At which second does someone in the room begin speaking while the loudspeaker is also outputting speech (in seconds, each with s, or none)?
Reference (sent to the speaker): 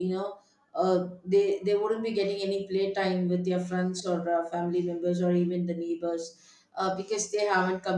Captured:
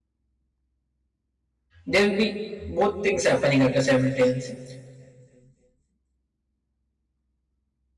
1.9 s